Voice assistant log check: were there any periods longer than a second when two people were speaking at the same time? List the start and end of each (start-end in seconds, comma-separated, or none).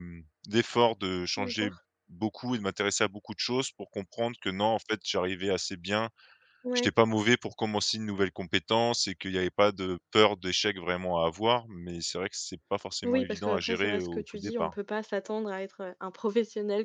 13.0-14.7